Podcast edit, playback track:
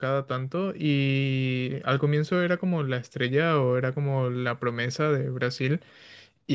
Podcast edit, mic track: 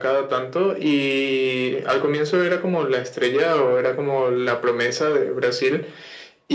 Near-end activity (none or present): none